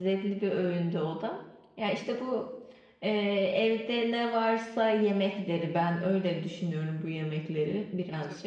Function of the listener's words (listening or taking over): taking over